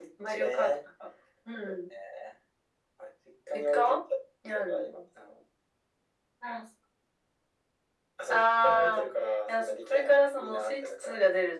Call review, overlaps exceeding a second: present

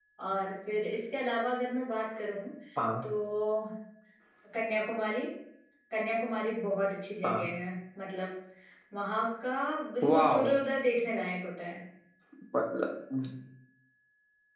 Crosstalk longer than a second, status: none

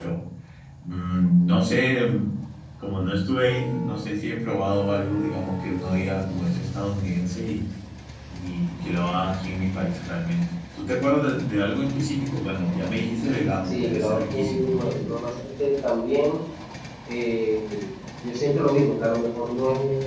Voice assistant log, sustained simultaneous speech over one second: present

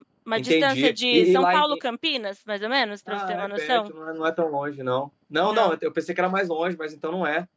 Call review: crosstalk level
present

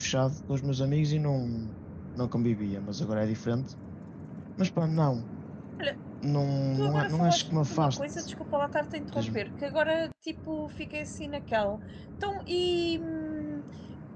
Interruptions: present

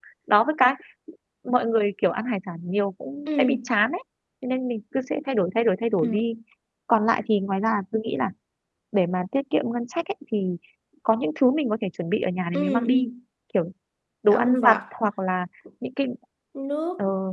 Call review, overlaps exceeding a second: none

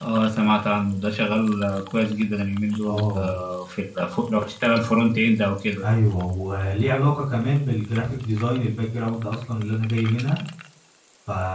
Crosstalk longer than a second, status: none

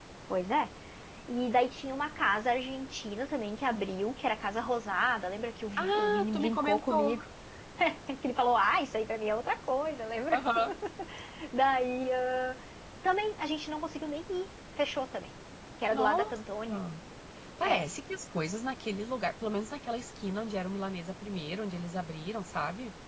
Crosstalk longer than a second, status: present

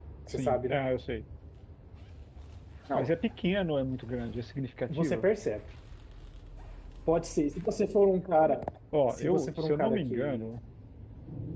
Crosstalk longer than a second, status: present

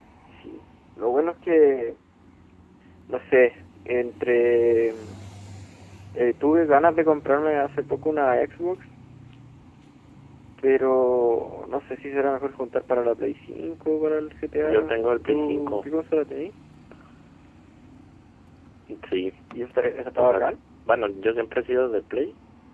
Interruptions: present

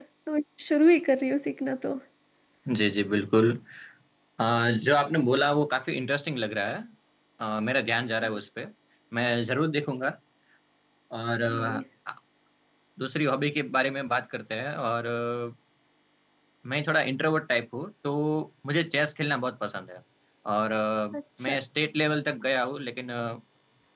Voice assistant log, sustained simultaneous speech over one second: none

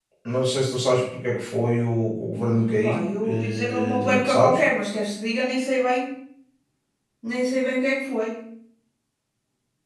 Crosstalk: present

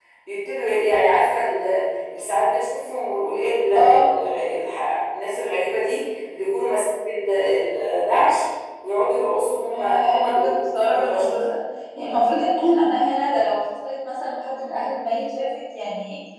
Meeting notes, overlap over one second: present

